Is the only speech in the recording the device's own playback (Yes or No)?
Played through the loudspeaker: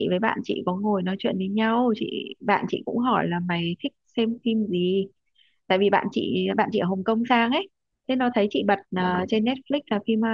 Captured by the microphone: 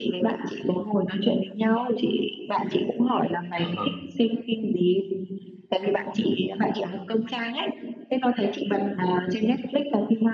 No